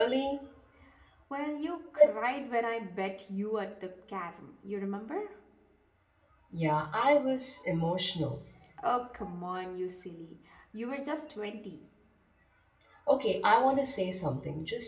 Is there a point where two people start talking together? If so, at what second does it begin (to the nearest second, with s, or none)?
none